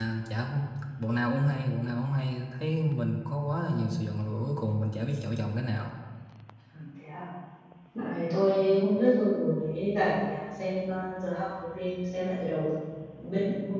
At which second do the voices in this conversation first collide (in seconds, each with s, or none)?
none